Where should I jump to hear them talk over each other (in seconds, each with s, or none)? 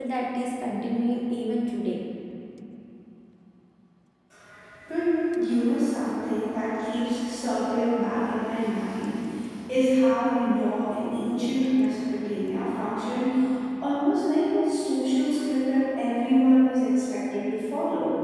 none